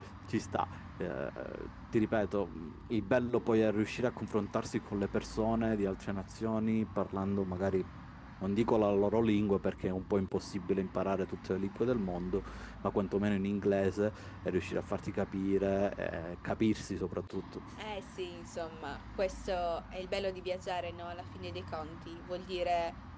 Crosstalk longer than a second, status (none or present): none